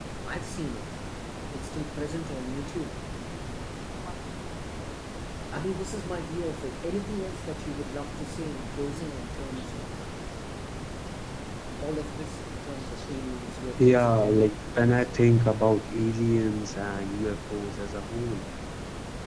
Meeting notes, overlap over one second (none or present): present